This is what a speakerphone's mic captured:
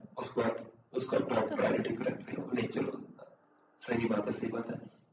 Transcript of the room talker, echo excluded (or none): वो तो है।